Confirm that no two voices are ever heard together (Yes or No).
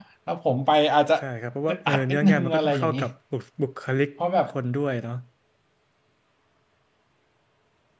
No